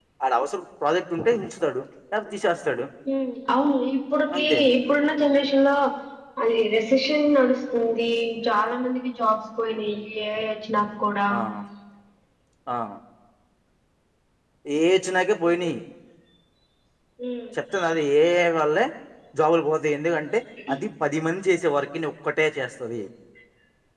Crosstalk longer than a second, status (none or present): none